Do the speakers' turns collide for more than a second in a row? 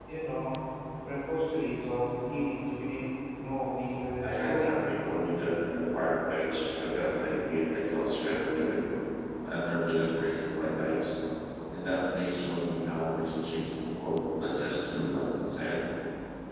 No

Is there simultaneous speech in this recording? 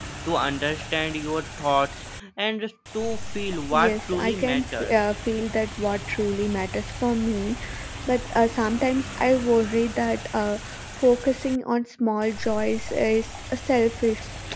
Yes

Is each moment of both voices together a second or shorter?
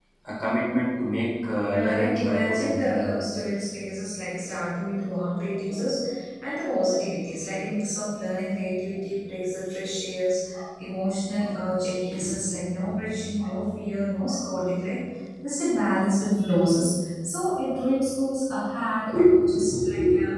No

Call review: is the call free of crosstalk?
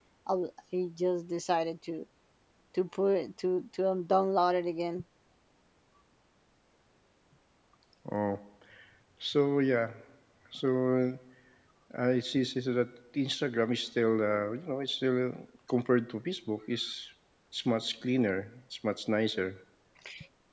Yes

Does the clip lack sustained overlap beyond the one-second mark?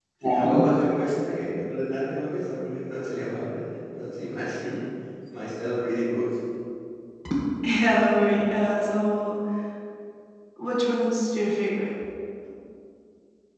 Yes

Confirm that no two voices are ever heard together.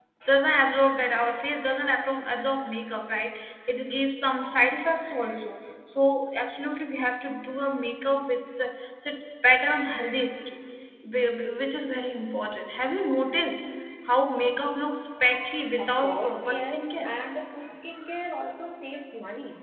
No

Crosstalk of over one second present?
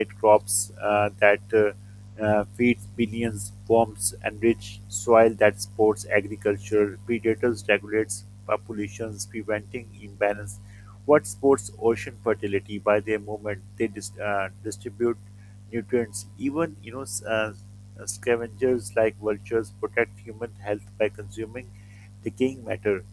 No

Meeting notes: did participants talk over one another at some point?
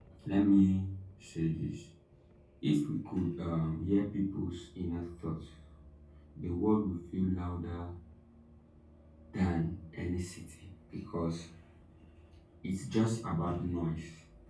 No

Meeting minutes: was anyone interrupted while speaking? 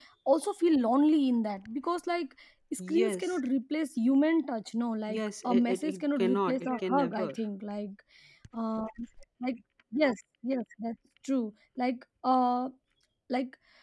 Yes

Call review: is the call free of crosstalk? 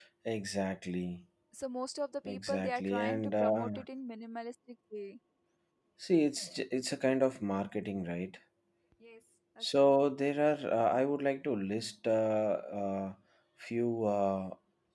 No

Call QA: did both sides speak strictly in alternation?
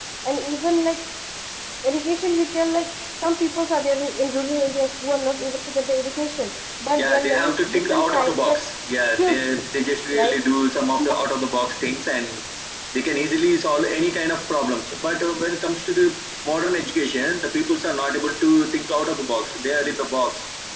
No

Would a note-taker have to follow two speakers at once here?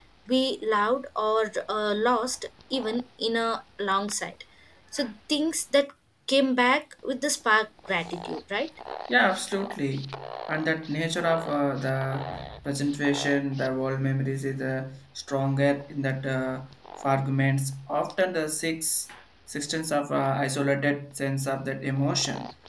No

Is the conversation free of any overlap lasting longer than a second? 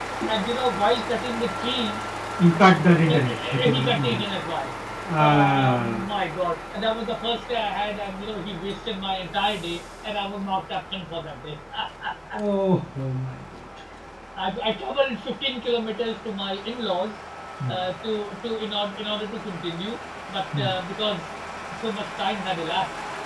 No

